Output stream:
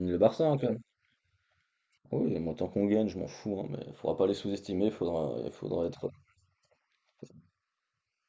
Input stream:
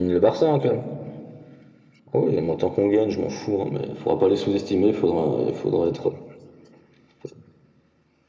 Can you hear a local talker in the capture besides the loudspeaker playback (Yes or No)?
No